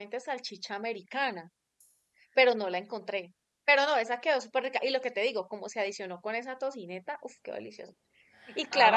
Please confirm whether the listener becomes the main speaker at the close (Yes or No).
No